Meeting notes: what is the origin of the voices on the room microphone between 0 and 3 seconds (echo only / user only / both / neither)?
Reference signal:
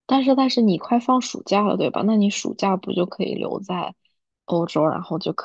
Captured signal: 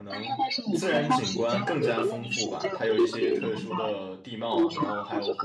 both